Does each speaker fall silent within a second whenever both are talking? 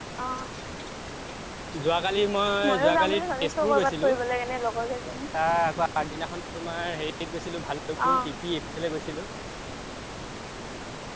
No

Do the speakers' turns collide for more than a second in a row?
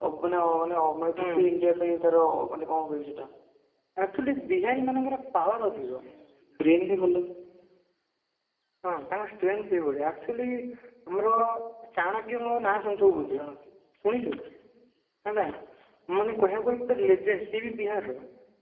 No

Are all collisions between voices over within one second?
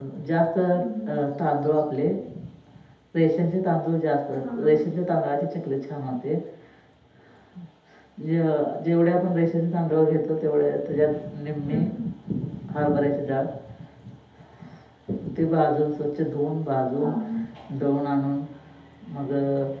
Yes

